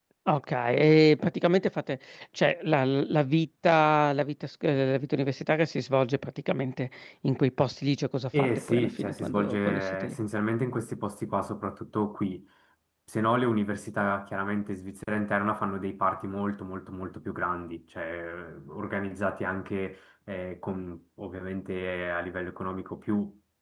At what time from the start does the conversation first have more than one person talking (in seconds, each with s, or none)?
8.3 s